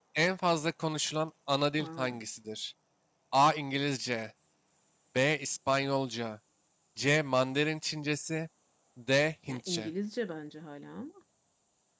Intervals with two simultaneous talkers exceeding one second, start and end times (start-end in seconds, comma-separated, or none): none